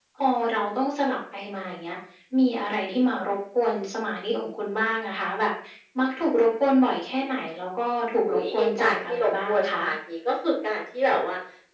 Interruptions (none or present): present